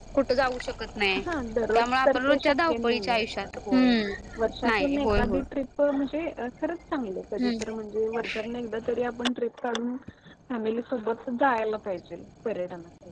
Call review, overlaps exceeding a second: present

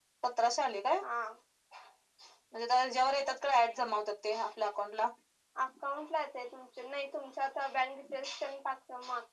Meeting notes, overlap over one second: none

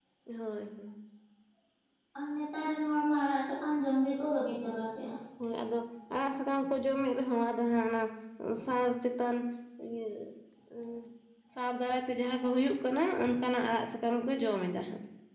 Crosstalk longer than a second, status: none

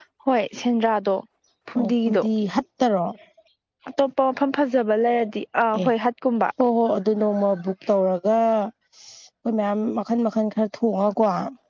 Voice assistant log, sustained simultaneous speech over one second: none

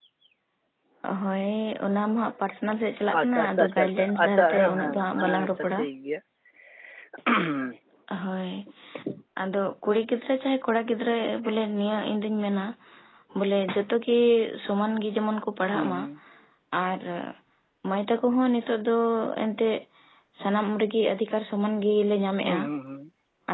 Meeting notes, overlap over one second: present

